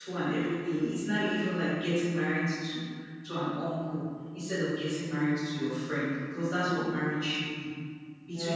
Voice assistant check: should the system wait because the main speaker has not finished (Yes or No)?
Yes